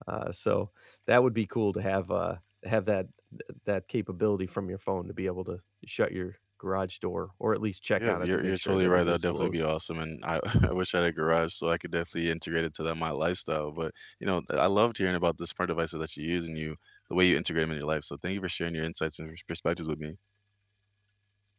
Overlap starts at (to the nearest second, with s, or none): 8 s